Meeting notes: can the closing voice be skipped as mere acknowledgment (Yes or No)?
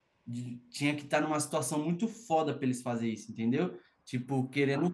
Yes